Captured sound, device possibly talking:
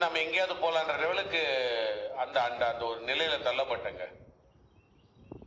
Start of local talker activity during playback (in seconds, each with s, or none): none